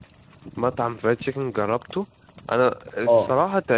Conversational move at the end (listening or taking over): listening